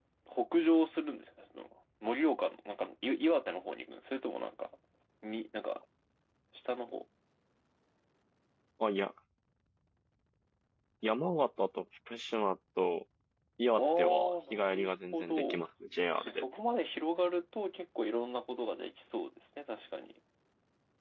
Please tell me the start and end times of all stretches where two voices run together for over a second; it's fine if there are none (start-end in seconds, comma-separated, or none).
13.8-15.6